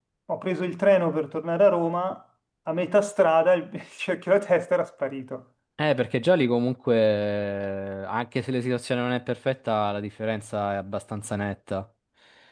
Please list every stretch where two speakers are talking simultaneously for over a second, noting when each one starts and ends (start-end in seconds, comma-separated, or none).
none